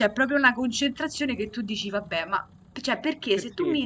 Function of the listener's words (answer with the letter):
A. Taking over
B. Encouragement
B